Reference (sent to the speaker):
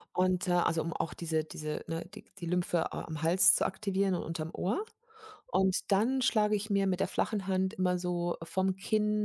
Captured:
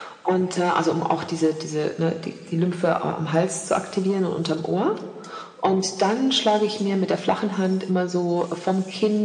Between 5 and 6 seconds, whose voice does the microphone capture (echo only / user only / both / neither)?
echo only